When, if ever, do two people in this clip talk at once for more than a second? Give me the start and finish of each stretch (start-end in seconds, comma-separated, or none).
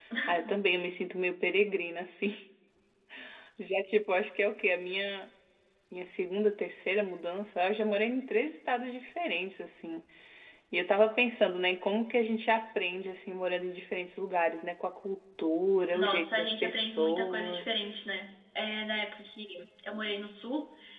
15.9-18.0